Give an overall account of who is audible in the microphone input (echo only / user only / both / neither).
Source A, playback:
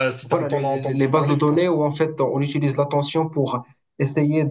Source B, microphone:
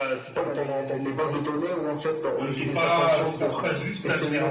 both